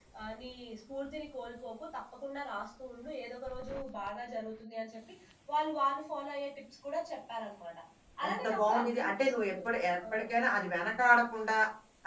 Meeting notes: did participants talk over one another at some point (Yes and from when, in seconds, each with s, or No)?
Yes, from 8.3 s